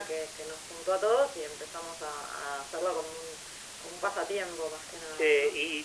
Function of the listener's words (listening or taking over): taking over